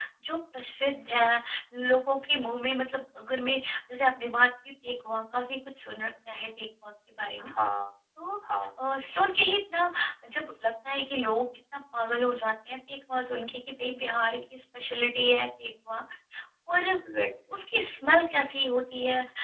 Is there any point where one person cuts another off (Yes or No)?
No